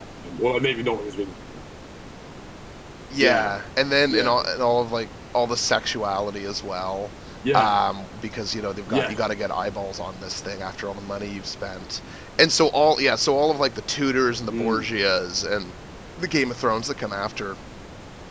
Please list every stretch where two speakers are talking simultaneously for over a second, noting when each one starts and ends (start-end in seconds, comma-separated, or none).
none